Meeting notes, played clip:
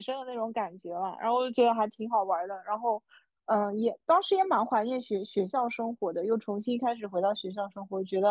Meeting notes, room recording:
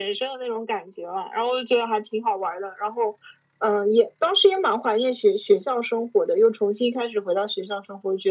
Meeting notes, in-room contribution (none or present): none